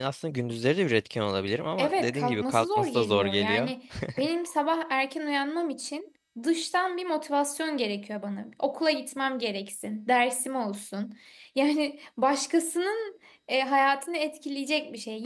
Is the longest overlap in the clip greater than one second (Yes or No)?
Yes